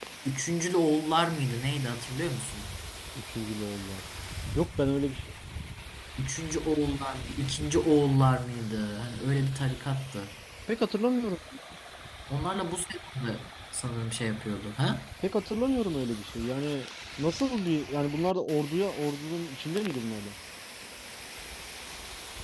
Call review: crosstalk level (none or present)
none